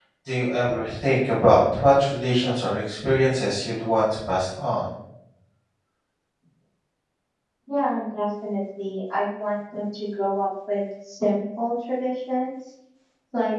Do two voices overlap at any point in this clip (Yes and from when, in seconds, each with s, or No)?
No